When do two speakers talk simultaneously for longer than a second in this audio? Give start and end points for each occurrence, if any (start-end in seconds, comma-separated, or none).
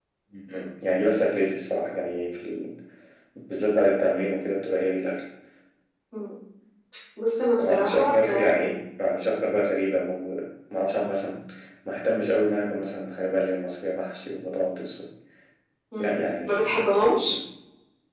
7.6-8.8, 16.0-17.3